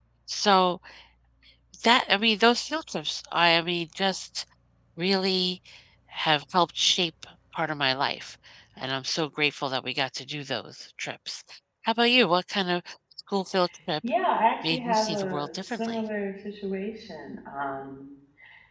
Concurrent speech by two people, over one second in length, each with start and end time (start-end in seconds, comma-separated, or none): 14.6-16.0